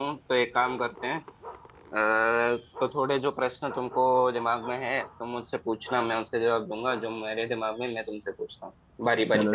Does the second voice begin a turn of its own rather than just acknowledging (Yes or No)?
Yes